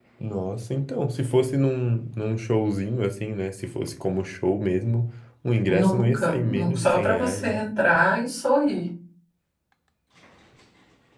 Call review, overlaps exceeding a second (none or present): present